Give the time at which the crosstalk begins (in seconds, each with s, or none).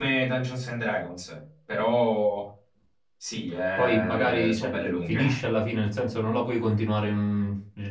3.8 s